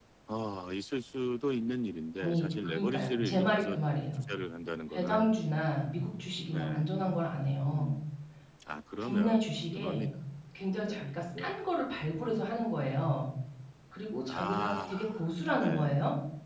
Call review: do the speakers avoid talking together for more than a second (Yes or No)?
No